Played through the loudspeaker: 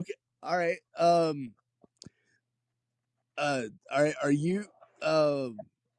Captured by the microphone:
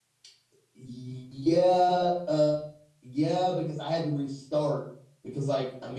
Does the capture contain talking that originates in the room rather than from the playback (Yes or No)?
Yes